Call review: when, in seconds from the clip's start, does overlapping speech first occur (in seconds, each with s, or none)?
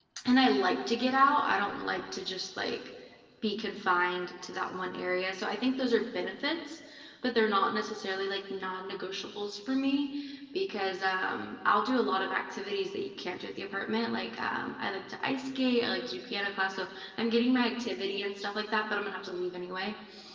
none